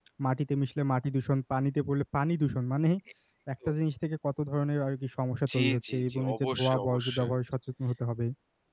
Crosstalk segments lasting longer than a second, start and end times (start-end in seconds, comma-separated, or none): 5.5-7.3